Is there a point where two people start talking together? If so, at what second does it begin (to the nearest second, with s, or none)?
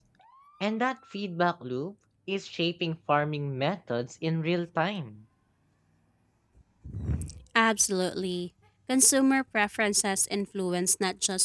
none